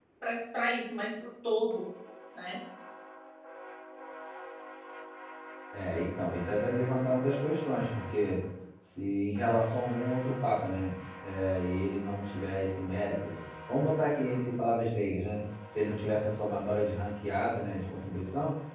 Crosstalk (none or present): none